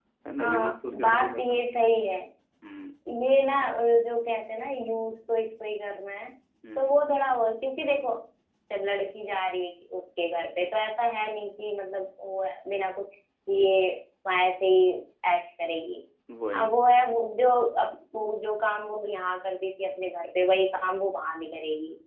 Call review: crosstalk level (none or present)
present